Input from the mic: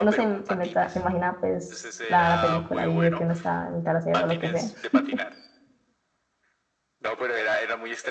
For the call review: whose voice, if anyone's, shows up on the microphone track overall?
both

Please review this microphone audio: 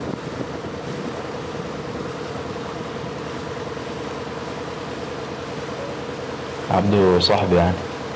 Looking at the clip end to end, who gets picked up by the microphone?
user only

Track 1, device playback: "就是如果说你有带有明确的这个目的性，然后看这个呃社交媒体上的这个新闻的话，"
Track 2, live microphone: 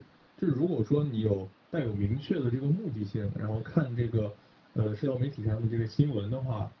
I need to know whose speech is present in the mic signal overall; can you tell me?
echo only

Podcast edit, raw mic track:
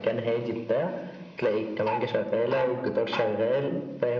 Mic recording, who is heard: echo only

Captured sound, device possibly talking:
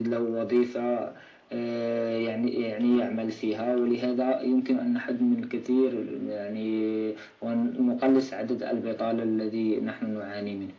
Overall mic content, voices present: echo only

